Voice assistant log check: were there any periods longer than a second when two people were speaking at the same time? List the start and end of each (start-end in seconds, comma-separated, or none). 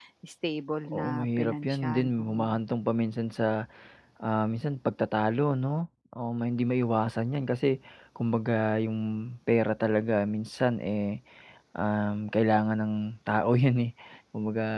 0.9-2.6